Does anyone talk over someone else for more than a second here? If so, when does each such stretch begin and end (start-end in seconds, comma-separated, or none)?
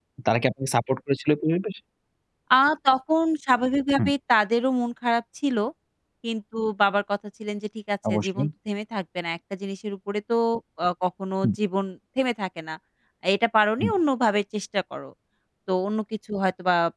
none